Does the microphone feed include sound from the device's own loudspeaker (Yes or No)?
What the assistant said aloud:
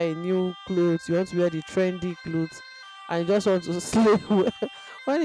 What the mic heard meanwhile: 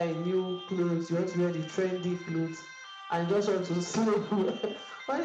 Yes